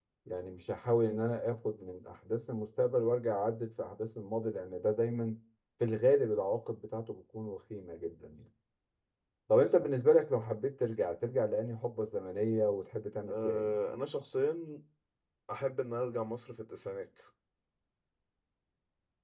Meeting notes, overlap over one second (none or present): none